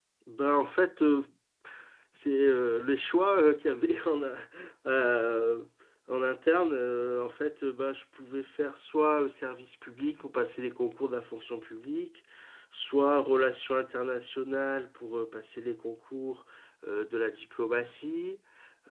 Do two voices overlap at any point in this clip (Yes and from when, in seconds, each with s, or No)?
No